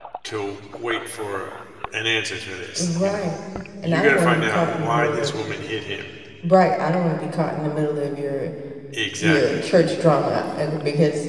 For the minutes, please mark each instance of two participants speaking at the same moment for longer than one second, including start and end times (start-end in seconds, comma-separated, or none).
3.8-5.3